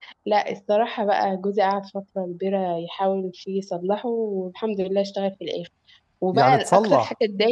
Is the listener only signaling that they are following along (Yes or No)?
Yes